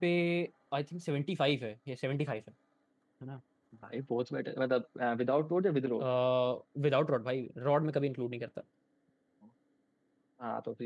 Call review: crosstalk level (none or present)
none